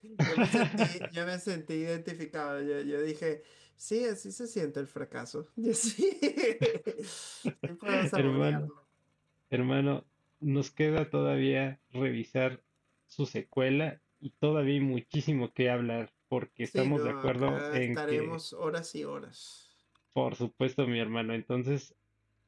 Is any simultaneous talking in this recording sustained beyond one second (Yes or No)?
Yes